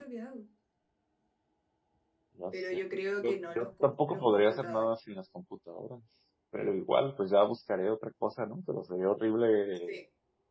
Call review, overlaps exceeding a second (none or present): present